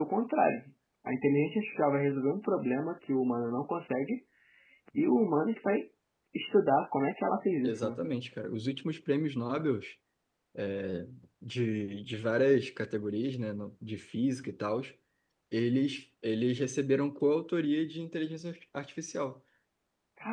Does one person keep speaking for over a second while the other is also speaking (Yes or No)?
No